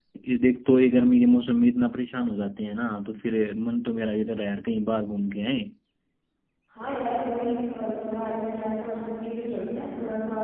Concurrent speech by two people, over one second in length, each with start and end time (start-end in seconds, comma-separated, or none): none